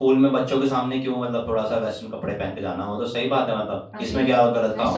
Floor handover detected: Yes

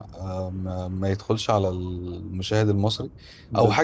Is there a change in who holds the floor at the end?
No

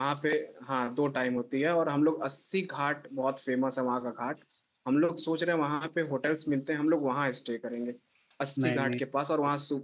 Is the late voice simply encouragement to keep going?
Yes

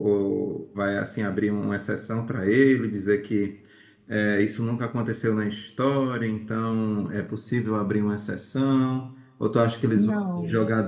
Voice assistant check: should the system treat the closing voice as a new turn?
No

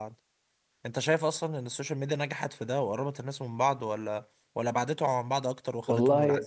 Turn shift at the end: Yes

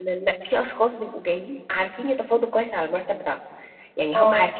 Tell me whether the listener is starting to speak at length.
No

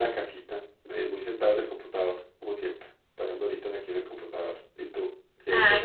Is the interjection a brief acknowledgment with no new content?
No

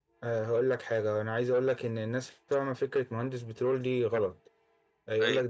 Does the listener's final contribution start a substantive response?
No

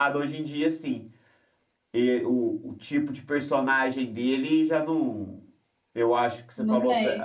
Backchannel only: Yes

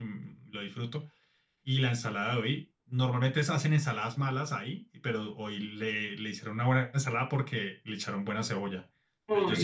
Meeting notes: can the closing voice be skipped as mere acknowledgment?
Yes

